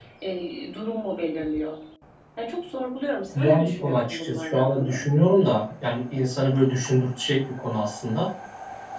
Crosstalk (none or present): present